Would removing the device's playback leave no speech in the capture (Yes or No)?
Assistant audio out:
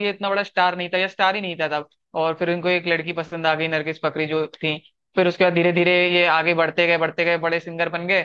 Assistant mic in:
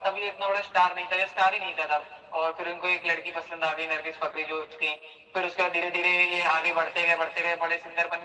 Yes